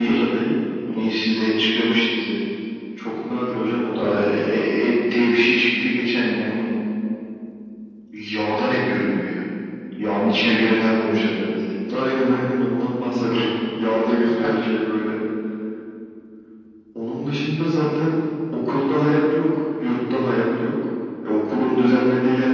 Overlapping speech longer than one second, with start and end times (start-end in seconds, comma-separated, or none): none